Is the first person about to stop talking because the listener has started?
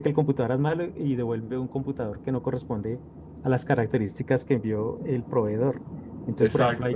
No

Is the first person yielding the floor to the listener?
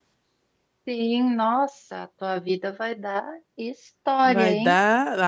Yes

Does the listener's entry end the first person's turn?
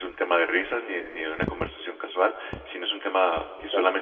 No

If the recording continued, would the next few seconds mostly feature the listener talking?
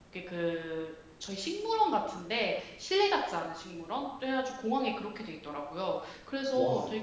No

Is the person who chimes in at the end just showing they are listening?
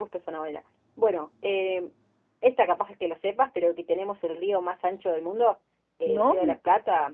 Yes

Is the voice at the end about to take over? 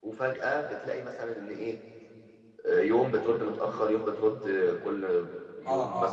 Yes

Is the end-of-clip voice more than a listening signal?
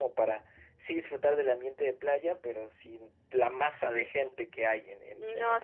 Yes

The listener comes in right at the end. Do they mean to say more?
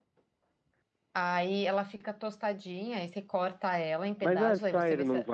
Yes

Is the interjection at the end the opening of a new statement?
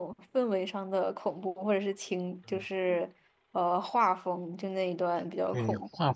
Yes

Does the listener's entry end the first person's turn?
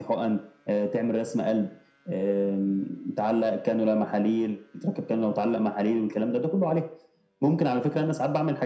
No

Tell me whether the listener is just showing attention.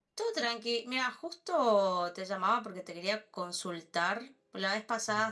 Yes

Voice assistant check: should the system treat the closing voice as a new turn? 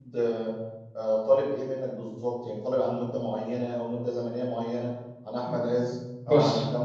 No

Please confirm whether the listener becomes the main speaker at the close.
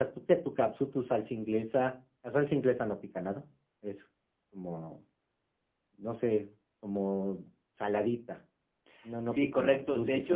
Yes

